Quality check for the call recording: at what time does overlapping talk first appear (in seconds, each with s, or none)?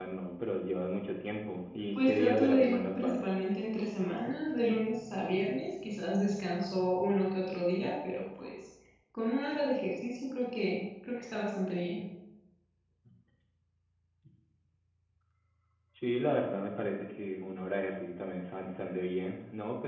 1.9 s